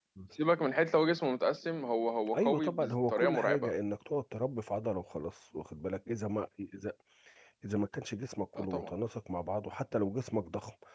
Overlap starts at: 2 s

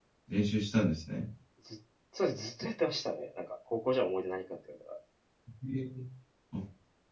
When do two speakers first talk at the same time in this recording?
none

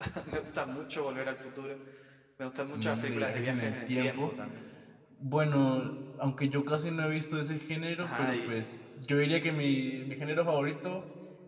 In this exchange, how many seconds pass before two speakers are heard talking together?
3 s

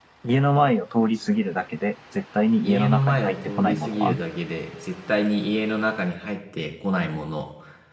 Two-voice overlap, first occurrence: 3 s

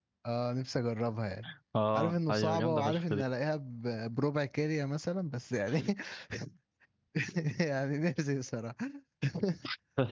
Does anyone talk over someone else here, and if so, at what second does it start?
2 s

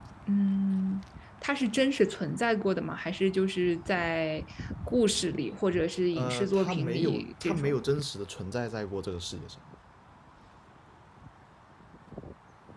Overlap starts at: 6 s

